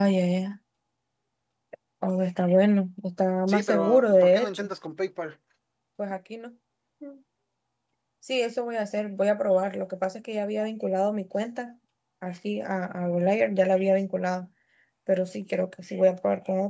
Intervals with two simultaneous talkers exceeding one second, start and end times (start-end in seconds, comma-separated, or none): 3.5-4.7